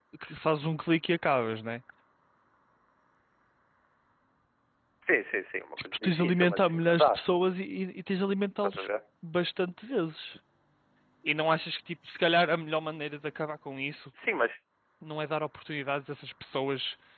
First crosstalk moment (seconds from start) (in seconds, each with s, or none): 5.8 s